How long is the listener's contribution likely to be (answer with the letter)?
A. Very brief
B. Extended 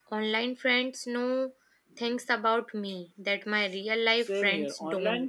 B